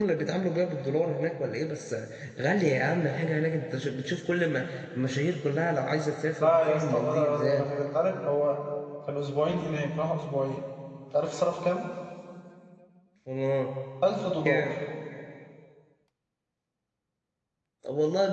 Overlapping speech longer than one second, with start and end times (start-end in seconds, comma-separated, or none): 6.4-7.7